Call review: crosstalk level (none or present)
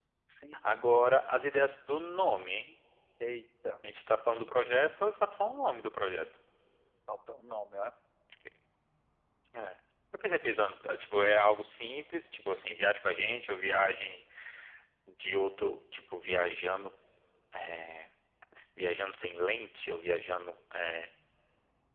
none